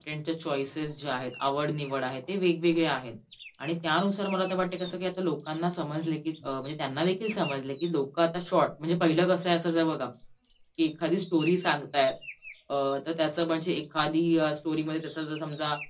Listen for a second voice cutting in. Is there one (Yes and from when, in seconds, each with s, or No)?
No